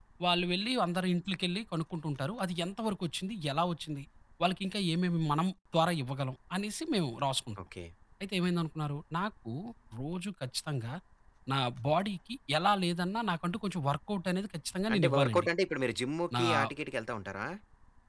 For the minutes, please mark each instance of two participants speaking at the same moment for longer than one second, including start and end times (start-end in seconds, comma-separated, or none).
none